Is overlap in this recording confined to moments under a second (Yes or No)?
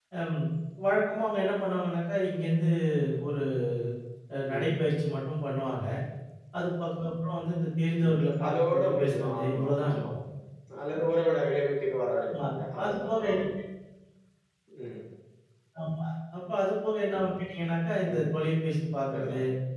No